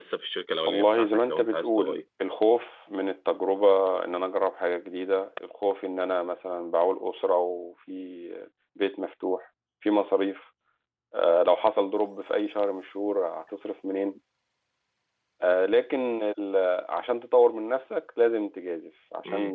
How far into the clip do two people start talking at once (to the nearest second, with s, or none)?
1 s